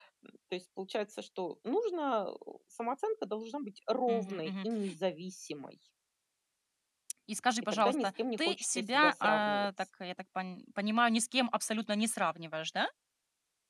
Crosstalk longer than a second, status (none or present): present